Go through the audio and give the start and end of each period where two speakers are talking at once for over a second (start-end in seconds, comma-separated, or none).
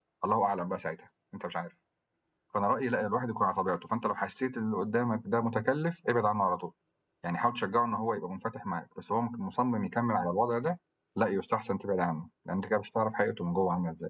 none